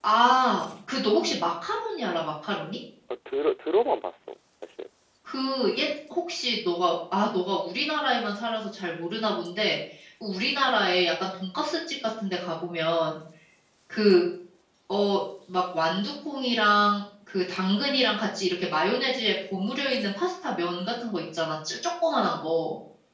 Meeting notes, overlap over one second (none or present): none